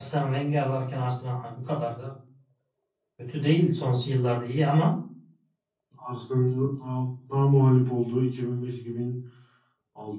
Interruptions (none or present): none